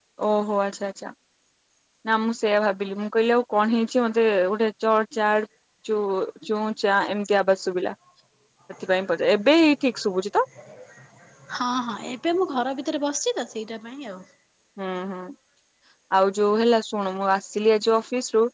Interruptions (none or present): none